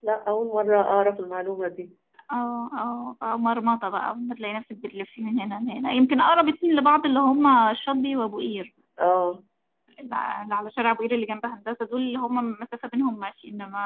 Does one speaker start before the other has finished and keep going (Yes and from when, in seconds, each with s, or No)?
No